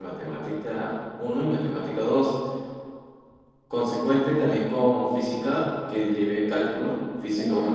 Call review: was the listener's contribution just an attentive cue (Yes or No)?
Yes